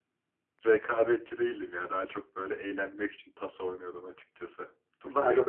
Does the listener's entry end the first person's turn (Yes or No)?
No